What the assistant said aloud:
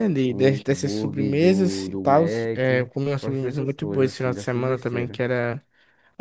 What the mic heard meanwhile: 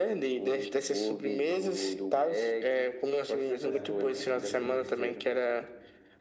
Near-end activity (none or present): present